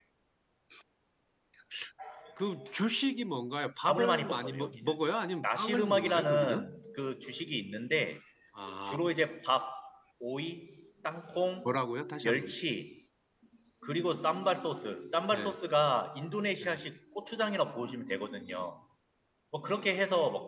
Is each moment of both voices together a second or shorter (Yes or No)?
No